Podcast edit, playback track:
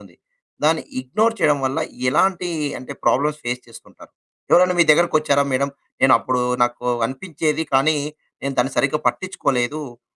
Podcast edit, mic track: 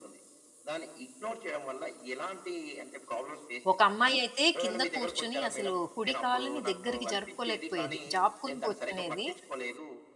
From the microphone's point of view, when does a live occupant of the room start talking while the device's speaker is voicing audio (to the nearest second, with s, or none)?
4 s